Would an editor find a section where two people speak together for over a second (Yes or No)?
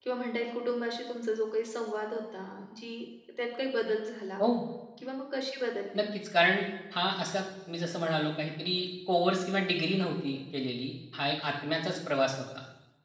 No